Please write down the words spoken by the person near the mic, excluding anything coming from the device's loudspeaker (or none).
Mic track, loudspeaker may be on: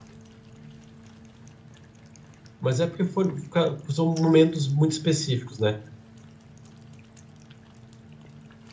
Mas é porque foram- fica- são momentos muito específicos, né?